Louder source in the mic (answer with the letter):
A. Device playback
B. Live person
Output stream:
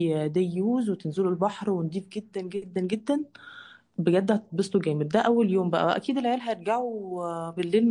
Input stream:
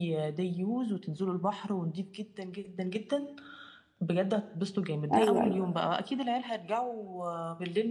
B